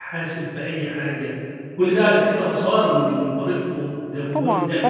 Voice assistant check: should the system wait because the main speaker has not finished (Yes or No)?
No